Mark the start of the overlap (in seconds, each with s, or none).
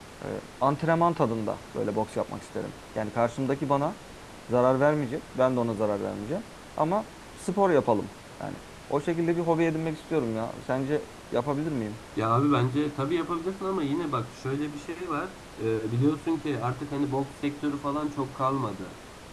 none